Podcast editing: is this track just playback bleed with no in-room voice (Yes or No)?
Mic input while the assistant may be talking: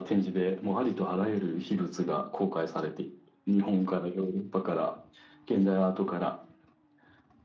Yes